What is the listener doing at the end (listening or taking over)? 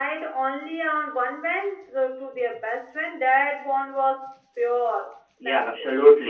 taking over